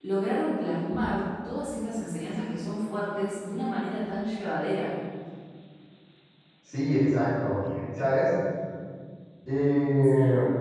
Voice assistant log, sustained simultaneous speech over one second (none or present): none